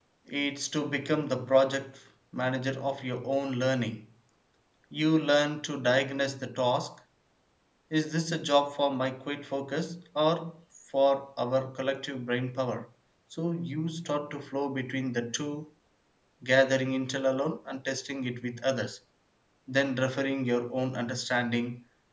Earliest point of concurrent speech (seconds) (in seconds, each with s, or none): none